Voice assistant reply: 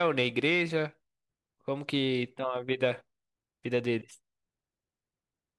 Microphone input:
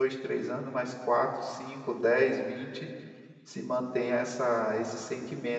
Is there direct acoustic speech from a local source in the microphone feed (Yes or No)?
Yes